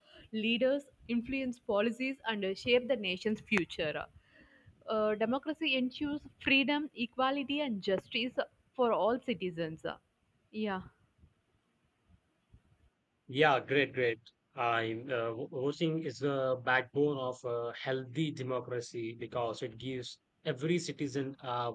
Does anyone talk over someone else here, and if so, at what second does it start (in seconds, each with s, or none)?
none